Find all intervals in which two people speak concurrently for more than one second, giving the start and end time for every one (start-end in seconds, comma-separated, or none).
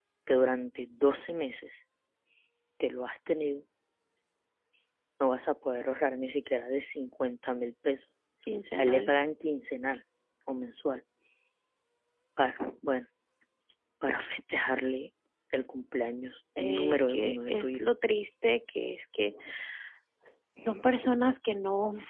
16.6-17.8